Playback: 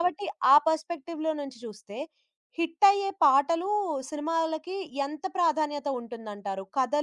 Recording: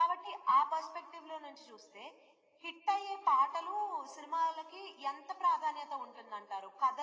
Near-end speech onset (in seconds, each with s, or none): none